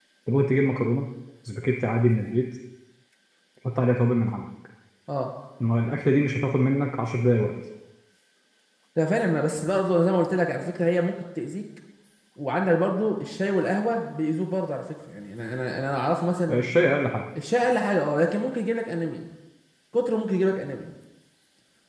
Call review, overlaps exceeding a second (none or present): none